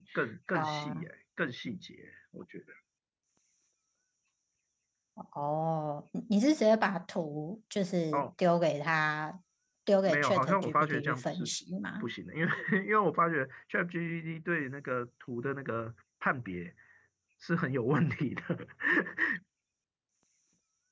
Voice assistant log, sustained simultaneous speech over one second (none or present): present